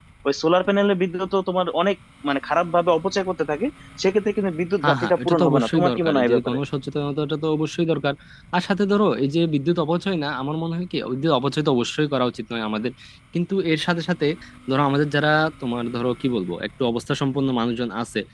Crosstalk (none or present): present